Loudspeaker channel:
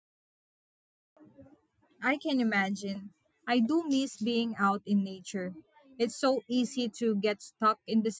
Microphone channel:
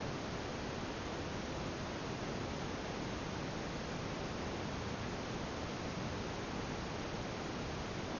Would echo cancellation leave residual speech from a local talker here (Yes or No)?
No